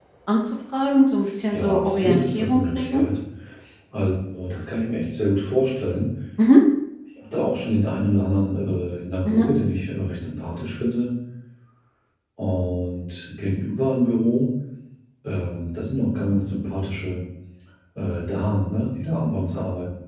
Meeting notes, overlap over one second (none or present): present